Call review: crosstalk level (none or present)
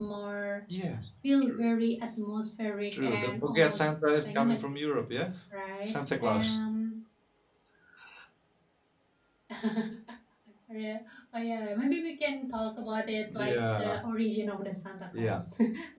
present